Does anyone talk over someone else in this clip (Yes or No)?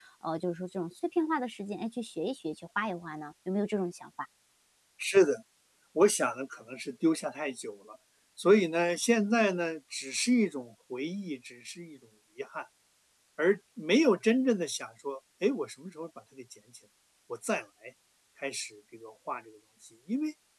No